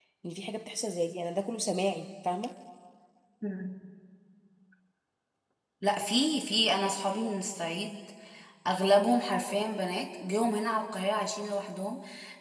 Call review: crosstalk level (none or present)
none